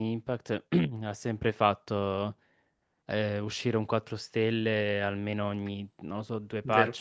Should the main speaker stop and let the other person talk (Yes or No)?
No